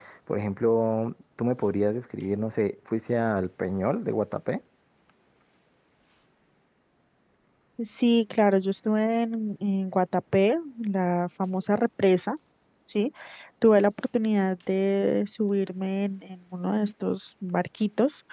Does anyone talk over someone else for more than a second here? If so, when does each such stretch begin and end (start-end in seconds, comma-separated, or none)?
none